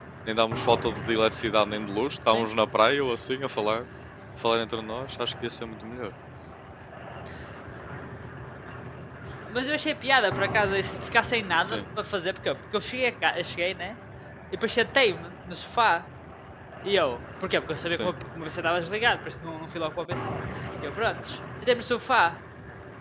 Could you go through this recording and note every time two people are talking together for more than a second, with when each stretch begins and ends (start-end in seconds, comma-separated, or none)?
none